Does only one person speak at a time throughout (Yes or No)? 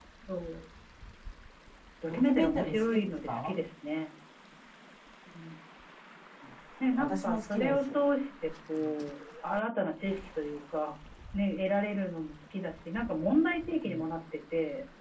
No